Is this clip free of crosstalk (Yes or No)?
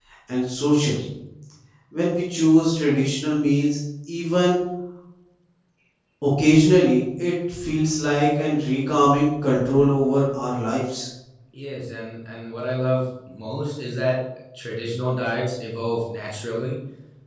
Yes